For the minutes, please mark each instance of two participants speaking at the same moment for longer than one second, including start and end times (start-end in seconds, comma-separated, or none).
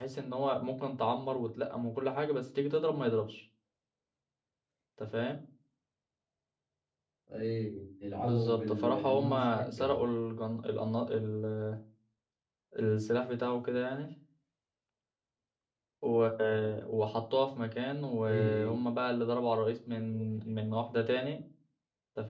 8.2-10.0